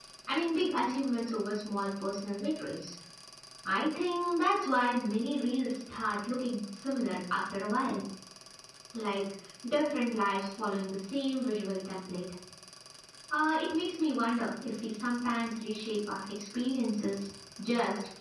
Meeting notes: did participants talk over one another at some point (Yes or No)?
No